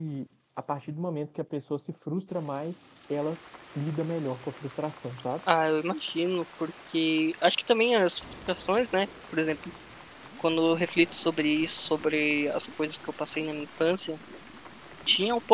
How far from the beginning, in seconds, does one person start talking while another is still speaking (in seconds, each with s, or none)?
none